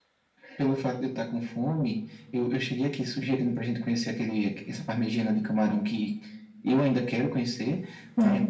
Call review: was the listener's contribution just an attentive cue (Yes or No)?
Yes